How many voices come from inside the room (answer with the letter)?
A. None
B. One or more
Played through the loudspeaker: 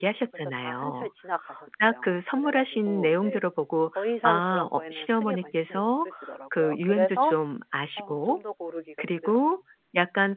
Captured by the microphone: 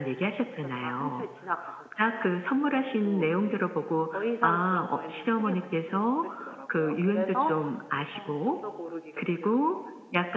A